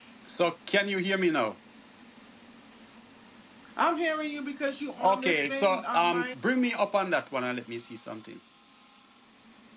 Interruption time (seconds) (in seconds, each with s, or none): 5.0 s